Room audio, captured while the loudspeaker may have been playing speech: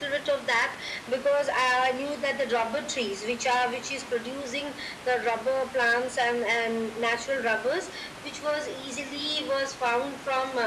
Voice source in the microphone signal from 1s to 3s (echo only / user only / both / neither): echo only